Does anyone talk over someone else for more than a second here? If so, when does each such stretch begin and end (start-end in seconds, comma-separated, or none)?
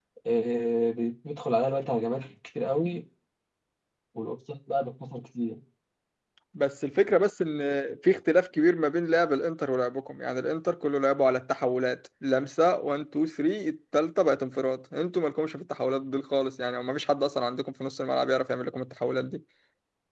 none